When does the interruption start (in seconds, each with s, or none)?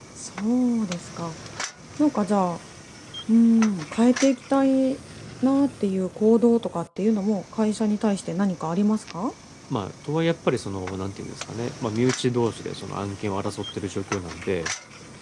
none